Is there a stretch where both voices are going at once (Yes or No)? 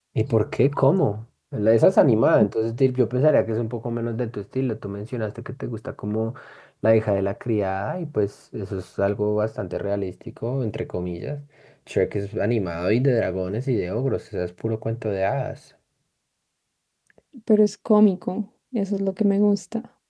No